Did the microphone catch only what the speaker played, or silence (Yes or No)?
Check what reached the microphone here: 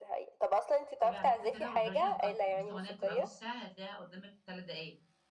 No